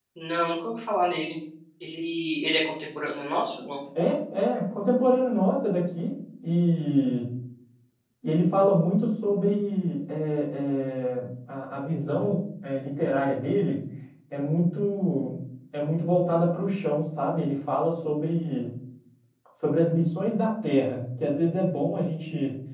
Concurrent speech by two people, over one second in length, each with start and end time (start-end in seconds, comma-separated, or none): none